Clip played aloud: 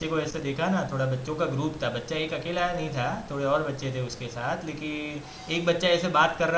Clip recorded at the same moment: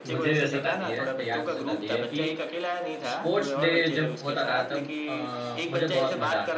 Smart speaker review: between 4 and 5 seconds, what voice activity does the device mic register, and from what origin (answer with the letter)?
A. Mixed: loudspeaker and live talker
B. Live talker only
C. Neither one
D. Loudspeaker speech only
A